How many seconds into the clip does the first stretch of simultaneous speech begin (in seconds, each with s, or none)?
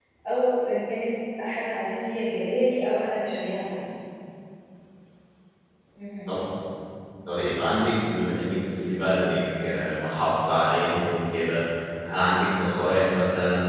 none